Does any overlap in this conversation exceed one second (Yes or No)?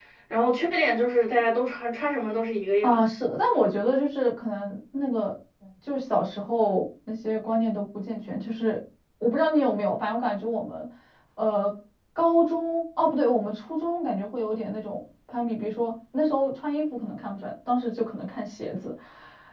No